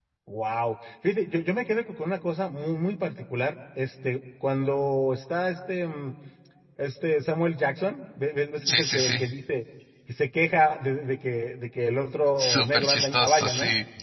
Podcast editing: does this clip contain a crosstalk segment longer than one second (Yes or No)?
Yes